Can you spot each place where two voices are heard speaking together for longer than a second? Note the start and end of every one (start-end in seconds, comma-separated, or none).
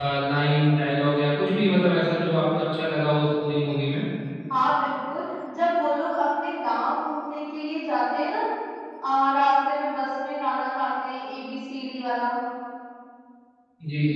none